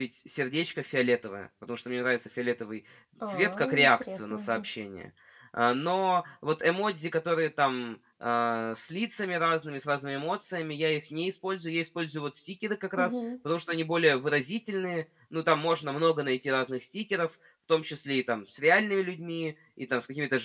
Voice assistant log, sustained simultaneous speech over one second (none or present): present